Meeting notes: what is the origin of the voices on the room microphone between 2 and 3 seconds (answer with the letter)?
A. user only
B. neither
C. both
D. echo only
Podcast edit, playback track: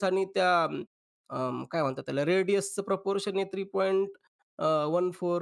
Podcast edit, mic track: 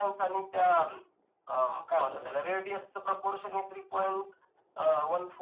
C